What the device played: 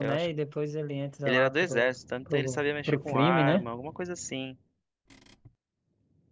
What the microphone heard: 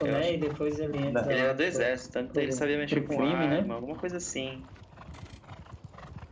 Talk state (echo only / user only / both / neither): both